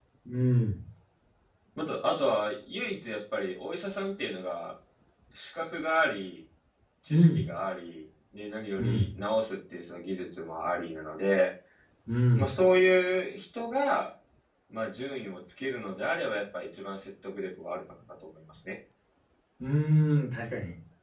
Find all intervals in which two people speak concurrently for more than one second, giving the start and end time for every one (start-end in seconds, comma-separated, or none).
none